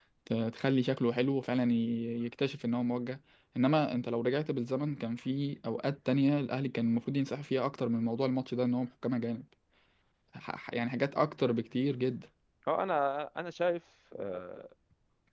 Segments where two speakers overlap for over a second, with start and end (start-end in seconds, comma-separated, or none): none